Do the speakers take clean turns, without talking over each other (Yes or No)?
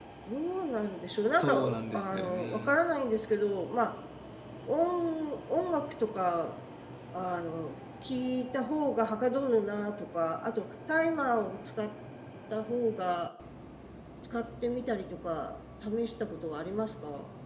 No